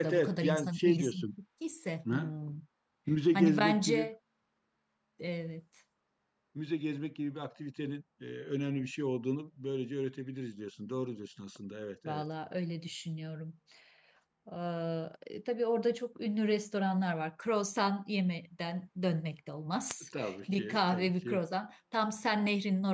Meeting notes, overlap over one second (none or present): present